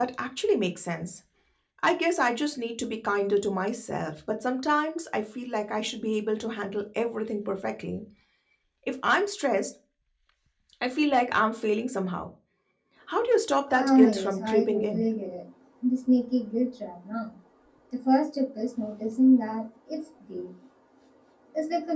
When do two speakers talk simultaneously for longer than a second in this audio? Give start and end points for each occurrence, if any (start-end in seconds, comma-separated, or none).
13.7-15.1